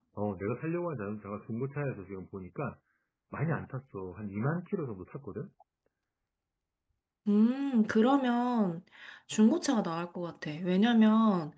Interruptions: none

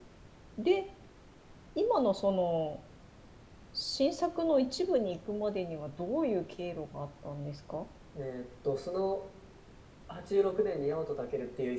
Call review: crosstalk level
none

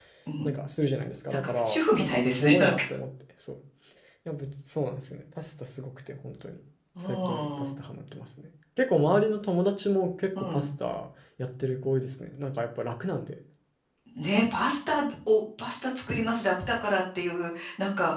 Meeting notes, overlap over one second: present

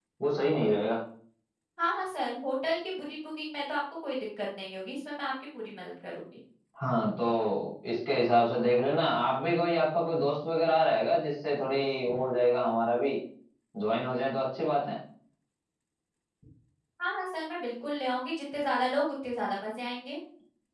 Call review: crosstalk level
none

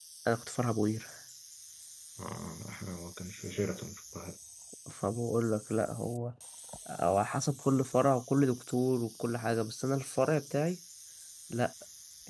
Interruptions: none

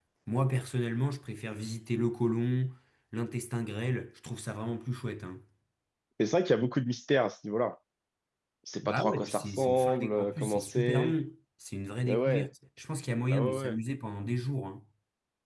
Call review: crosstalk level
present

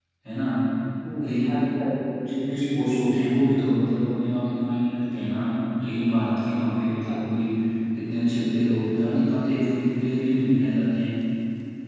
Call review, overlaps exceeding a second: none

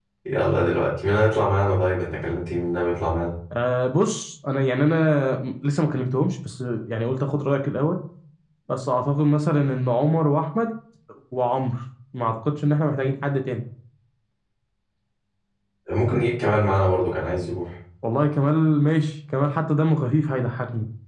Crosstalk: none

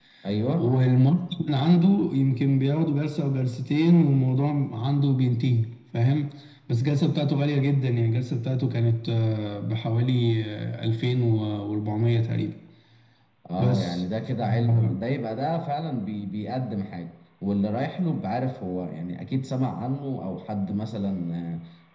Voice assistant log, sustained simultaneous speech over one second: present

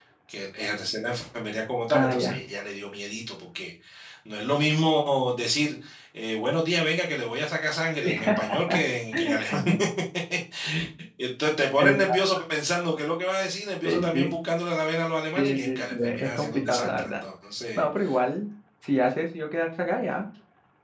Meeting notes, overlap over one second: present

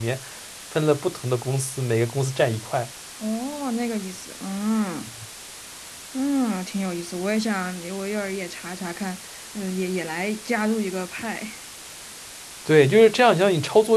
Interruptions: none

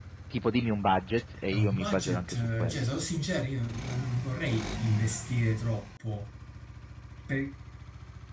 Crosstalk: present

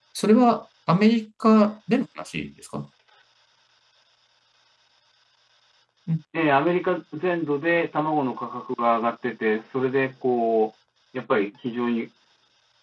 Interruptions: none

